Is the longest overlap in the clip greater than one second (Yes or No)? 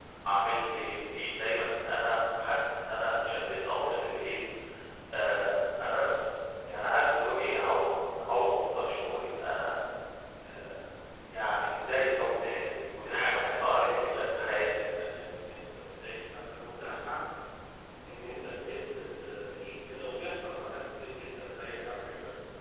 Yes